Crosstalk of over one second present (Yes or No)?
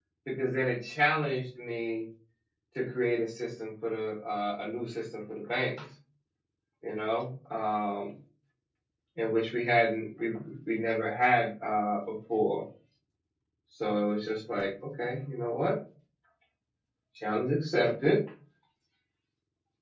No